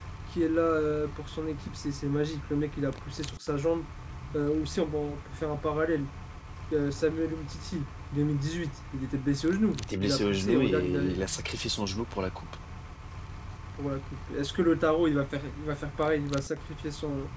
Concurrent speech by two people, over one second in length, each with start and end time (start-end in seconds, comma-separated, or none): 9.8-11.0